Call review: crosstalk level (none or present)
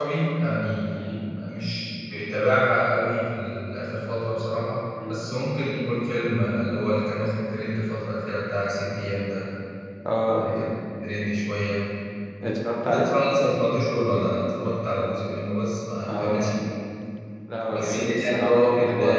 present